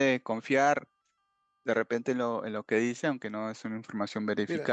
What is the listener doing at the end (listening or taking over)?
taking over